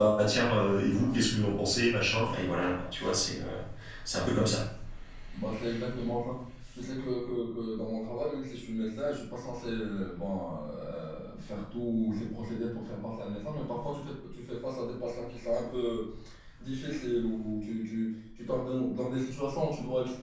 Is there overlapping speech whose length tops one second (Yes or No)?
No